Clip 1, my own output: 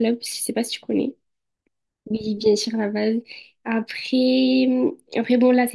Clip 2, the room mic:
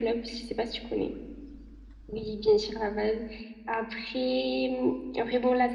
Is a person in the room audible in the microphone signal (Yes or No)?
No